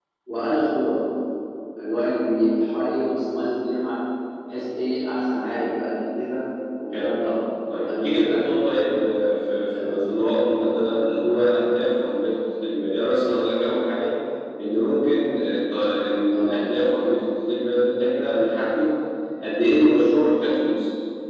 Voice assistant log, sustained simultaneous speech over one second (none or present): none